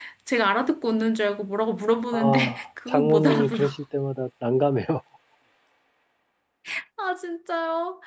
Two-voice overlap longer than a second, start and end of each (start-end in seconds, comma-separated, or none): 2.1-3.7